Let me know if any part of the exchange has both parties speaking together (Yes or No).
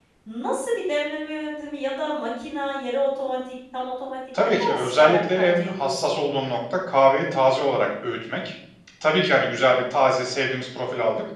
Yes